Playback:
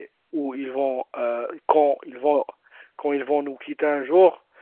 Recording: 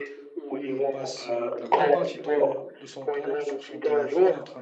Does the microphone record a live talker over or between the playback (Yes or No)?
Yes